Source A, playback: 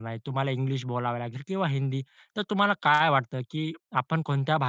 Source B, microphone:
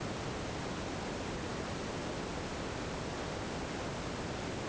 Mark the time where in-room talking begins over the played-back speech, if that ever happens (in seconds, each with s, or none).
none